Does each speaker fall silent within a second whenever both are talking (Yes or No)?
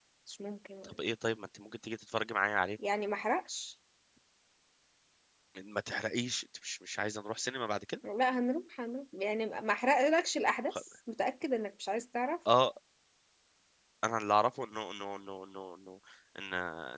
Yes